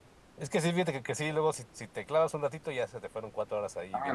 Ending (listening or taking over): taking over